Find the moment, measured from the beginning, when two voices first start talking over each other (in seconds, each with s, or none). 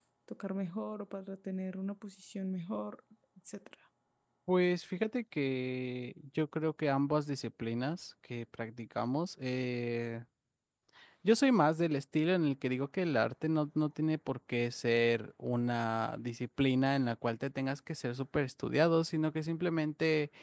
none